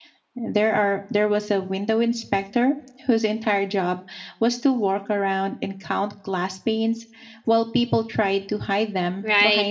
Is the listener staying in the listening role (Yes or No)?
No